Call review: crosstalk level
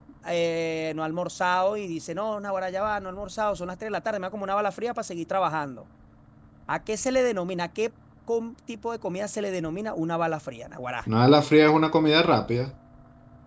none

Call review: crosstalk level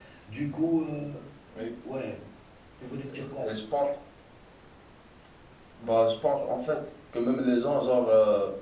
none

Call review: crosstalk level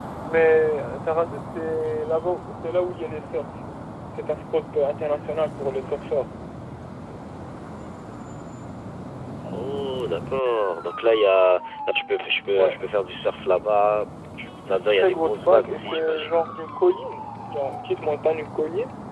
present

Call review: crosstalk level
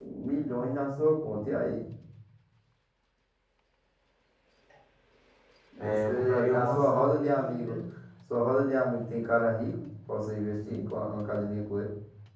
present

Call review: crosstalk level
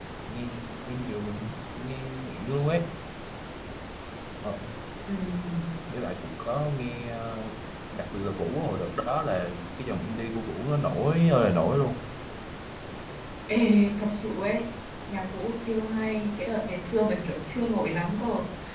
none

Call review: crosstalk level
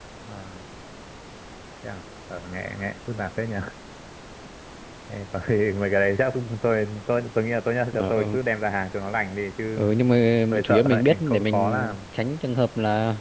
present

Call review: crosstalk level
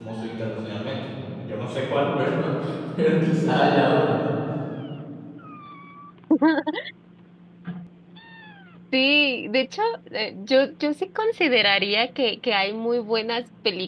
none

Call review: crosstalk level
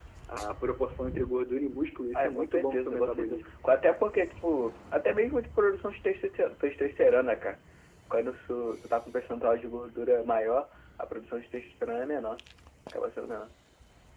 present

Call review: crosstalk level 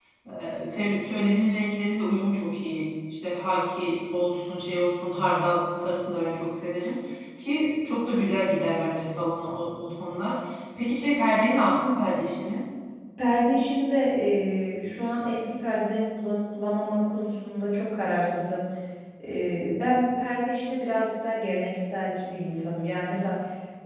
none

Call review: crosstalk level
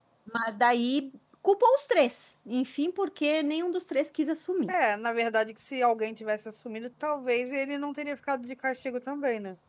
none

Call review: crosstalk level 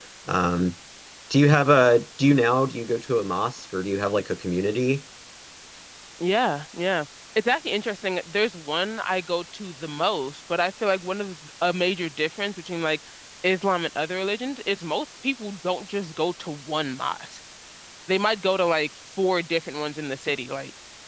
none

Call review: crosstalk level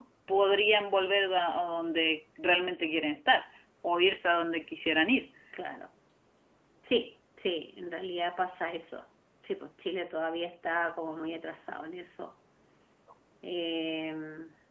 none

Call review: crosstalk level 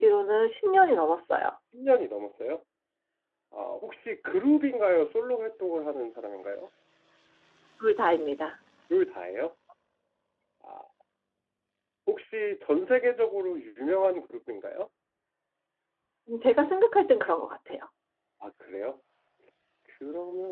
none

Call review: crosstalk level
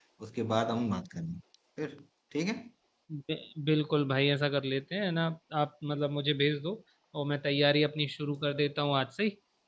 none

